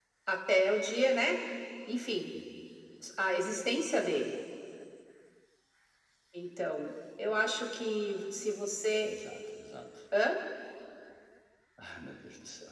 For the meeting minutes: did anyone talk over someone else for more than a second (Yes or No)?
No